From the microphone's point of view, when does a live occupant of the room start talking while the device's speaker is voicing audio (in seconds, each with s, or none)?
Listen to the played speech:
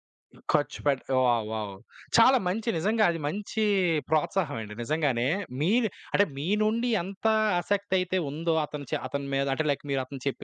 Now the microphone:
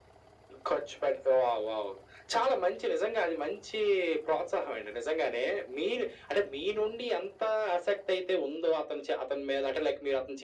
none